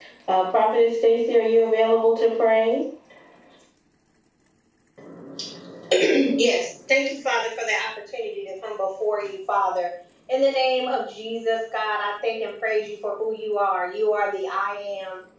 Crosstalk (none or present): none